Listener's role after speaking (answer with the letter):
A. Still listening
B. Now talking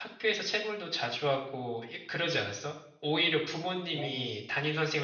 A